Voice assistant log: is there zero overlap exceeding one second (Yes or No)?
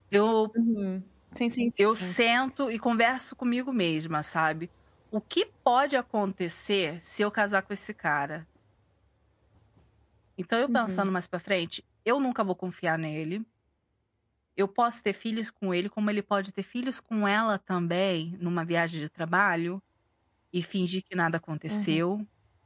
Yes